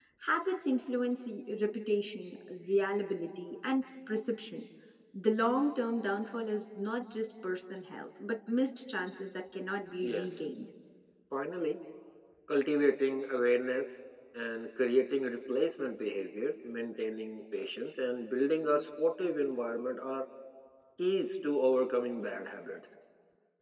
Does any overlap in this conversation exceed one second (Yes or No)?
No